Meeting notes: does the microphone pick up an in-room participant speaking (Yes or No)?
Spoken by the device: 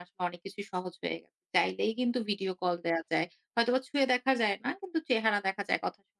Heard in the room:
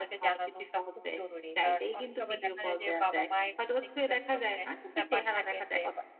Yes